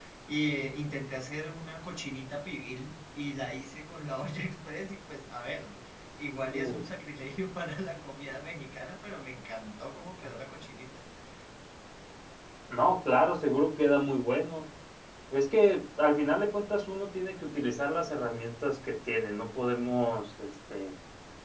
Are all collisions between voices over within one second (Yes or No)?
Yes